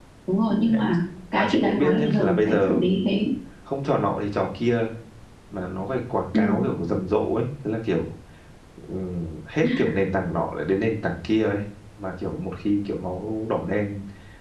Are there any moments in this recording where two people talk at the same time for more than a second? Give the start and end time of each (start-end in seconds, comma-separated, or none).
1.4-2.8